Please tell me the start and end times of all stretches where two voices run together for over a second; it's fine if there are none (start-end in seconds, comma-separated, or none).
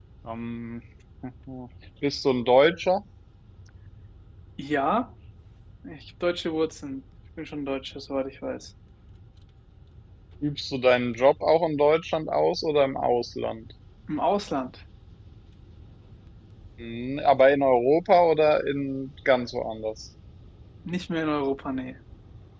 none